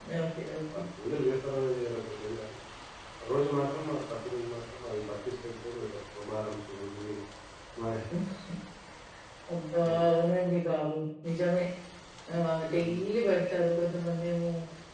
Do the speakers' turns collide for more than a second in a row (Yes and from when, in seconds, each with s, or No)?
No